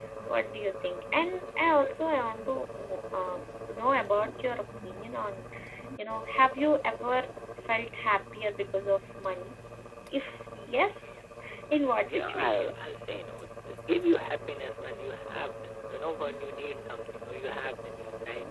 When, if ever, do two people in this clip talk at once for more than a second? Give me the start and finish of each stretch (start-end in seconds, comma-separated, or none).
11.7-13.0